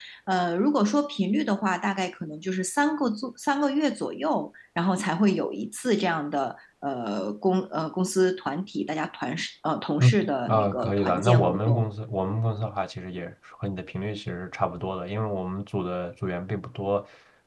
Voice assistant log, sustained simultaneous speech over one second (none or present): present